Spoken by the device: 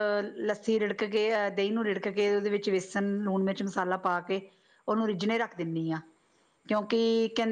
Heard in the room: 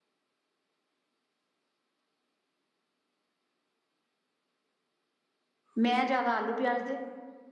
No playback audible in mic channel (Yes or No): Yes